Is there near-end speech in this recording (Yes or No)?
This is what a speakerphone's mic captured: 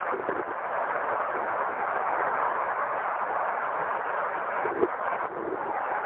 No